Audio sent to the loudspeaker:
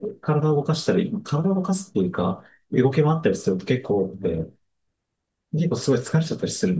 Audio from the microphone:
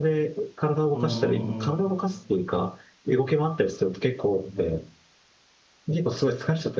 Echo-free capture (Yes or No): No